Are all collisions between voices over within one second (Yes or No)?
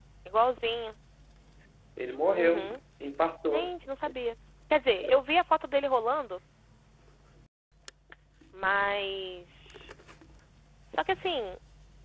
Yes